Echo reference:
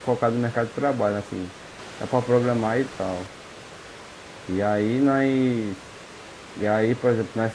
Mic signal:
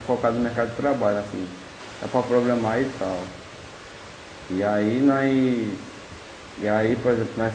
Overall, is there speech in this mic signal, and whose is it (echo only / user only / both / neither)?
echo only